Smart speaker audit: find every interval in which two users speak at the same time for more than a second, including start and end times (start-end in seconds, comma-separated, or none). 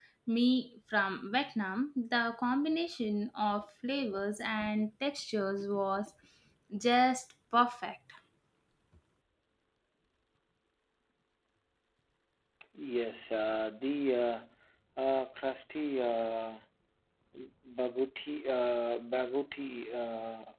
none